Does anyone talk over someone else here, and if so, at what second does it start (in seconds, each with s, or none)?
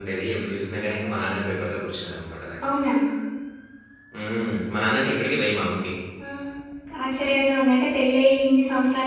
none